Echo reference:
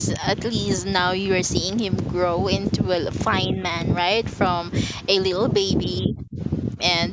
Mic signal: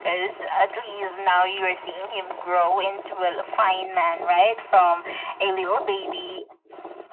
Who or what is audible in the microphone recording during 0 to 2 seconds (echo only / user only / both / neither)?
echo only